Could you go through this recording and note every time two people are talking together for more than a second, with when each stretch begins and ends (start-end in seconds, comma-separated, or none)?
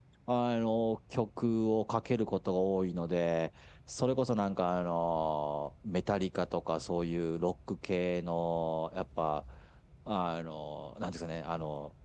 none